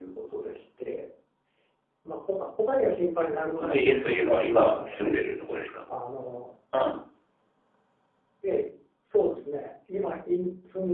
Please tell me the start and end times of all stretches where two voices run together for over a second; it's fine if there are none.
3.6-5.1

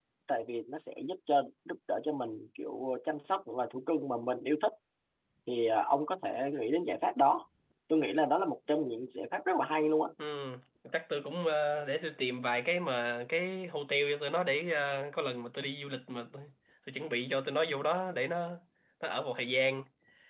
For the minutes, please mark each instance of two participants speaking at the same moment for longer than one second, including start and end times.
none

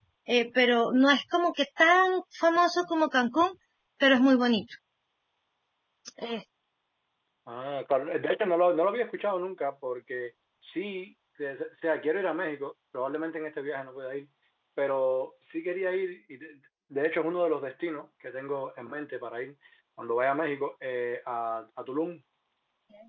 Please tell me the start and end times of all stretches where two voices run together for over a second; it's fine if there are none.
none

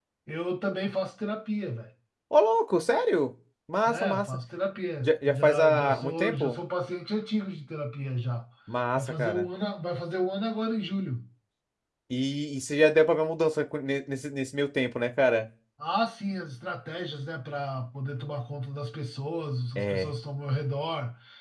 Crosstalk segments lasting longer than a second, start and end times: 5.0-6.6

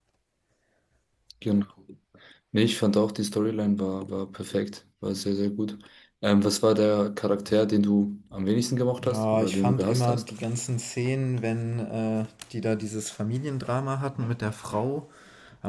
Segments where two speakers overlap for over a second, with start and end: 9.0-10.2

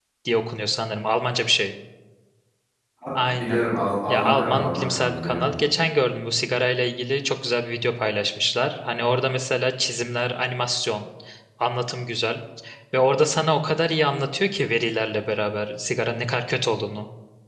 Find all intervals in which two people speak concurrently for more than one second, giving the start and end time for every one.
4.1-5.6

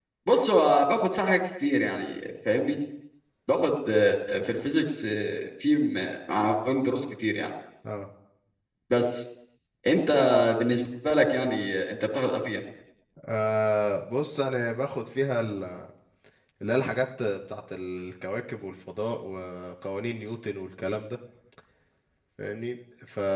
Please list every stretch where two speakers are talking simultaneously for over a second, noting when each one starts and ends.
none

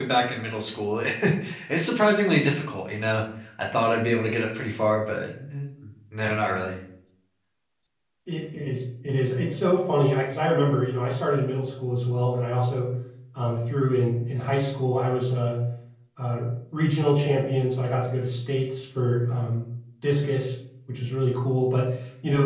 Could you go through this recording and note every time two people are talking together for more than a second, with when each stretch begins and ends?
none

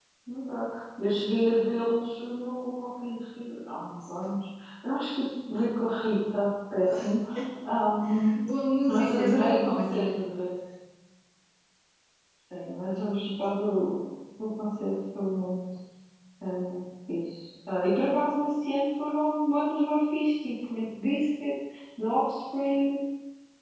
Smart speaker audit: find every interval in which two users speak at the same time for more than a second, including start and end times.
8.9-10.2

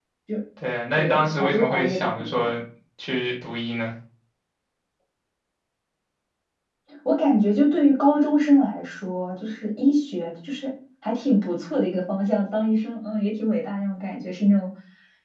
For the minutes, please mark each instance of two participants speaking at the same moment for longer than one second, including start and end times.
1.0-2.5

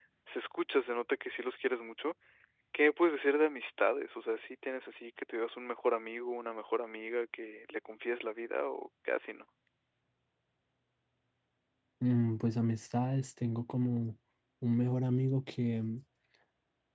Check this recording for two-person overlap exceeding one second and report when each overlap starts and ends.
none

